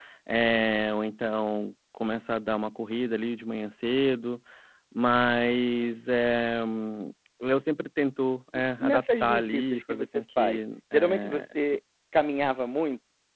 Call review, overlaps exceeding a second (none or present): present